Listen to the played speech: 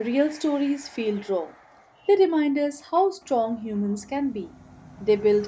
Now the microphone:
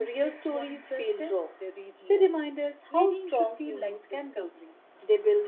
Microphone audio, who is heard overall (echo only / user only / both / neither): both